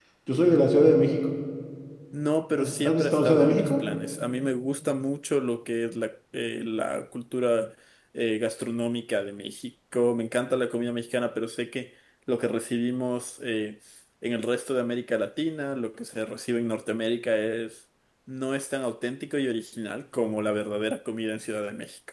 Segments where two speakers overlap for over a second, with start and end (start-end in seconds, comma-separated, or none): 2.6-3.8